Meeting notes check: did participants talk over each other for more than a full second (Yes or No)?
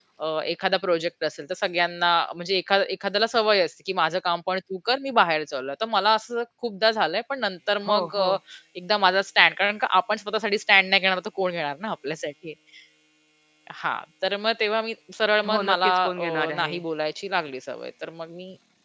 Yes